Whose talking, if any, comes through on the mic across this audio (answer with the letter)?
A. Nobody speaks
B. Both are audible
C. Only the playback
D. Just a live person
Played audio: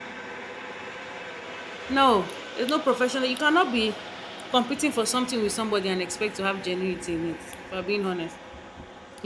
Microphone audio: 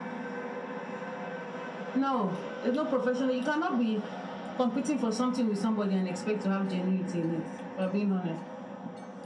C